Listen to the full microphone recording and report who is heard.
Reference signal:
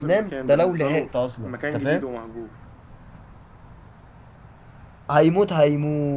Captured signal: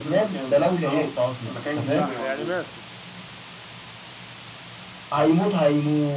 both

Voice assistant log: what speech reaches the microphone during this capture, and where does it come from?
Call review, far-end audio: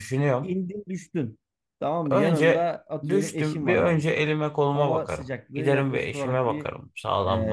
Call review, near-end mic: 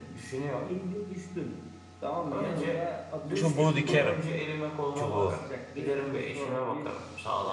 both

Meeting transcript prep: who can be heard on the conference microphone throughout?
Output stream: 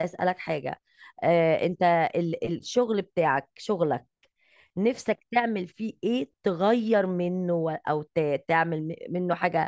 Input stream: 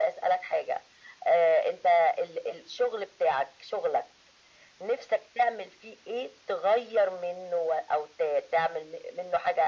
echo only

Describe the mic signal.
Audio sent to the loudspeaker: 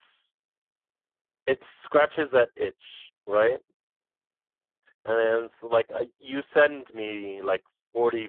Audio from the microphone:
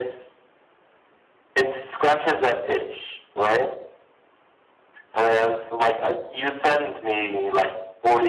echo only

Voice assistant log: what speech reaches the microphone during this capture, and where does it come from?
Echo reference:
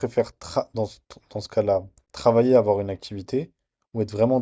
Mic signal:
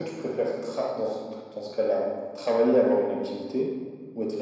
echo only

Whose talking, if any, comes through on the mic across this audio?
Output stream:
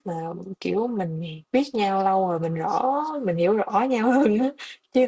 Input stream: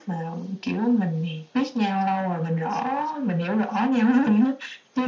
echo only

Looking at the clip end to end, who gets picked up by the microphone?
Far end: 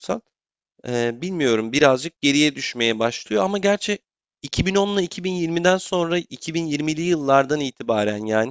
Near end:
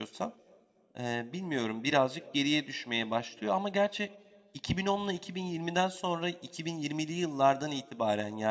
echo only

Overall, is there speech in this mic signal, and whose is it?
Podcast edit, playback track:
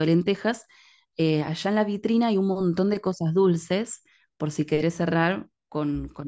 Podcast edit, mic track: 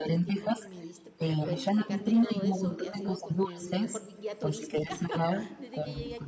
both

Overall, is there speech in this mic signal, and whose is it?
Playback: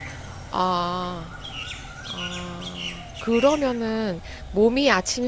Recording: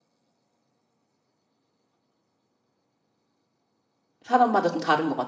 user only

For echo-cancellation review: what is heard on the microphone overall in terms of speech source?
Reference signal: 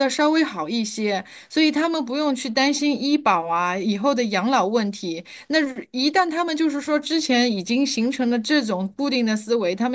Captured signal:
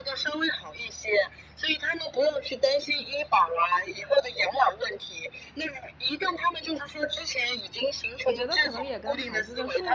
both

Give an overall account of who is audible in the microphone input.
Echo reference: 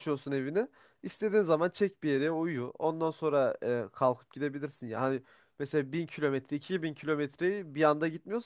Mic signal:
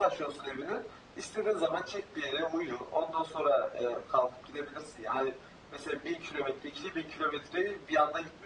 echo only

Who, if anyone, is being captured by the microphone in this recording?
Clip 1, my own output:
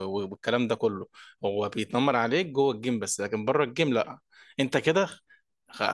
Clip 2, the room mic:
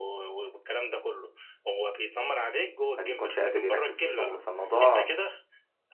both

